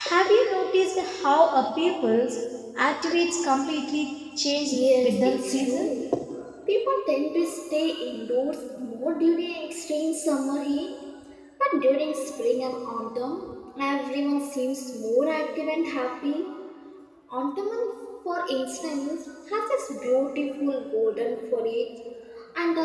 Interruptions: present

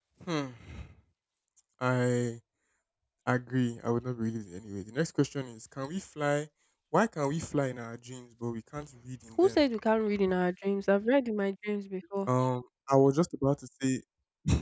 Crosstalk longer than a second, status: none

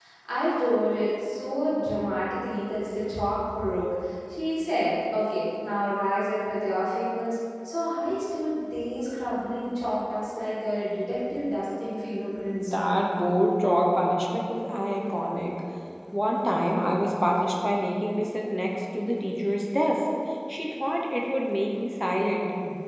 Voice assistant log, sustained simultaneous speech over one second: none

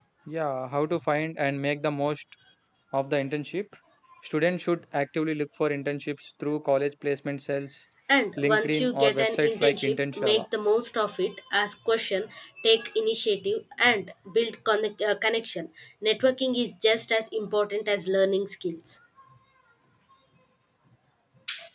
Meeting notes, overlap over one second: present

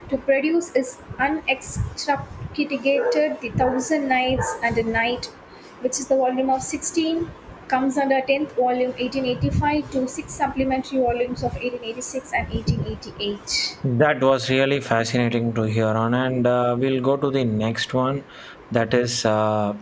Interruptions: none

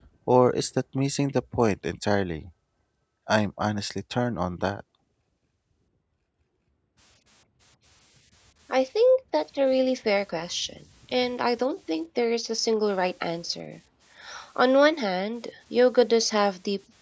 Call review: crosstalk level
none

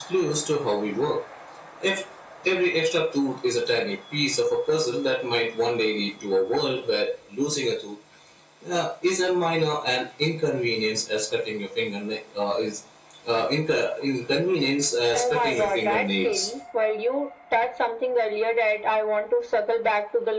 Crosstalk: present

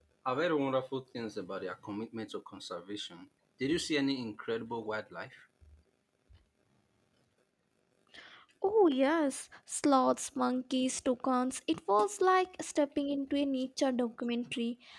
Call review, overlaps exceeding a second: none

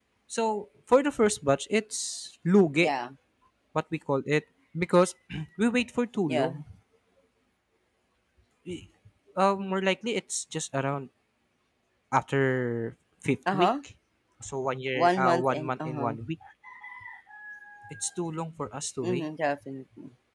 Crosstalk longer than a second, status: present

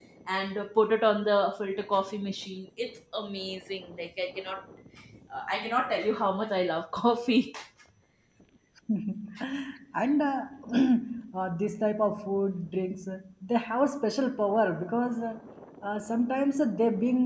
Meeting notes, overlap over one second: none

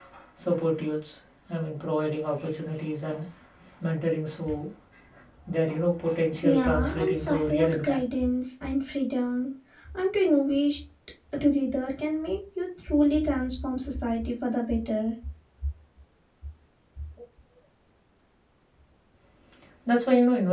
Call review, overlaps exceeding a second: present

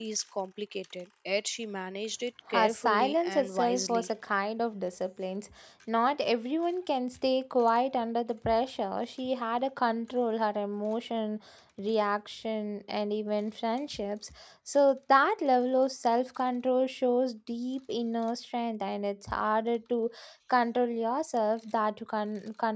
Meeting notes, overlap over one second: present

